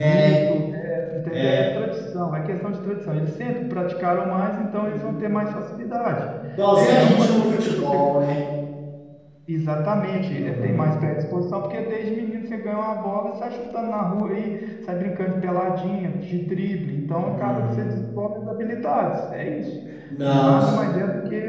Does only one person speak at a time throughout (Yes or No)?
No